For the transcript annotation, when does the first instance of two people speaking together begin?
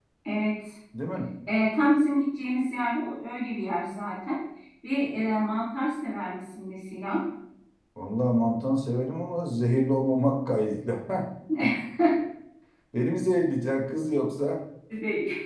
none

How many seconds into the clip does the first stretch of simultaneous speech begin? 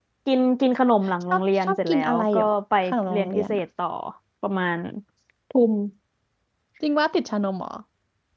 1.3 s

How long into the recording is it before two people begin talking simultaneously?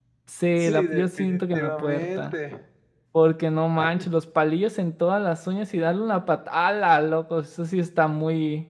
0.6 s

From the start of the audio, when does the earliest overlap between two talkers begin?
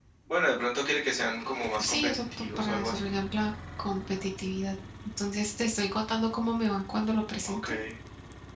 1.8 s

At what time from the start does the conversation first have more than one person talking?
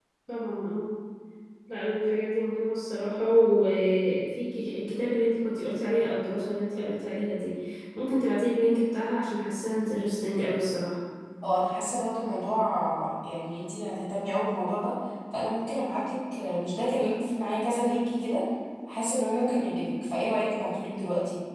none

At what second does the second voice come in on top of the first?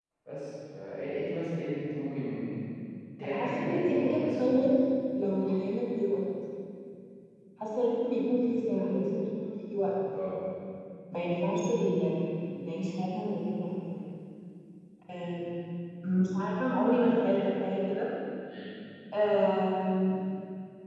3.2 s

